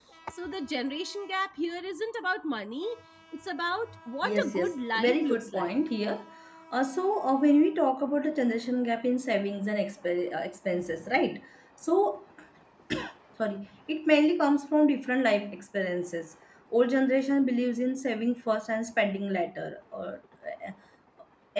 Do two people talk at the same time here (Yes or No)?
Yes